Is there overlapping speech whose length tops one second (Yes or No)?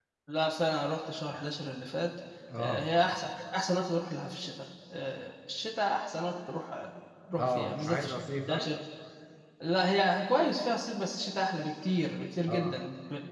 Yes